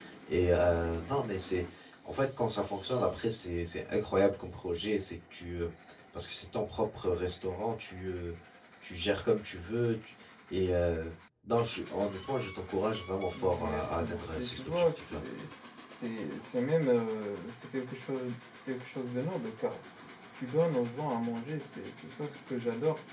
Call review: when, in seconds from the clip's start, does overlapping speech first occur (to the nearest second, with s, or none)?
13 s